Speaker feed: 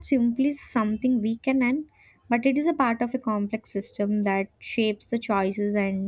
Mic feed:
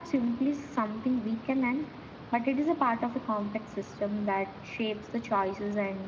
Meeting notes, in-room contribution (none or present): none